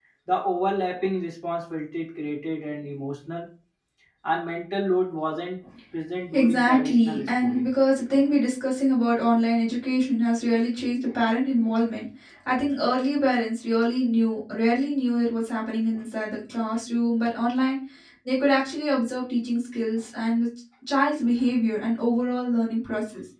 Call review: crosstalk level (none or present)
present